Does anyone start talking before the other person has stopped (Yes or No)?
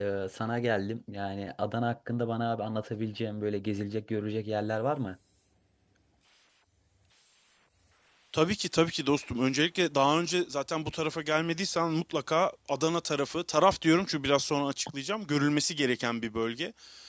No